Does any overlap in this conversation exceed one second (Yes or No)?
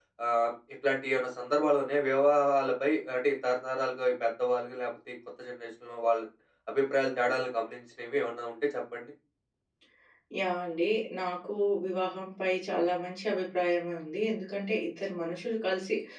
No